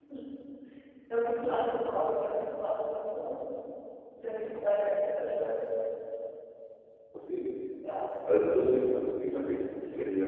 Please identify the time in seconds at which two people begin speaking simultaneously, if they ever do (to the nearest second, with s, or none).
none